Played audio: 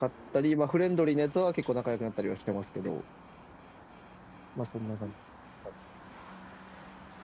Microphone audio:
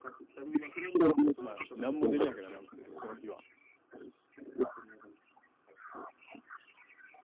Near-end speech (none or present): present